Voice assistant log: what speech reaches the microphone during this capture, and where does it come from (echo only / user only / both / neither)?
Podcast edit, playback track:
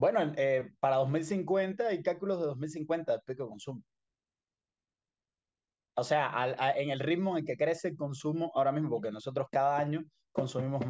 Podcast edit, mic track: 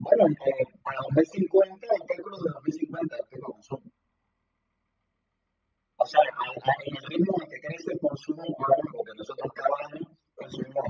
echo only